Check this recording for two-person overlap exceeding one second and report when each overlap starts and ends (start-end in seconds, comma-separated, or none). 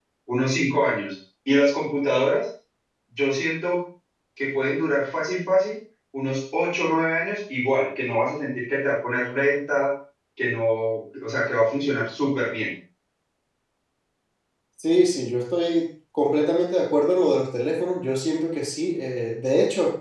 none